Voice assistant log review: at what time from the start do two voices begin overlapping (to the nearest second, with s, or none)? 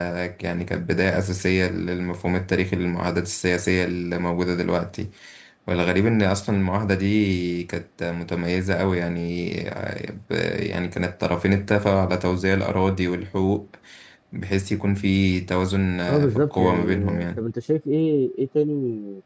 16 s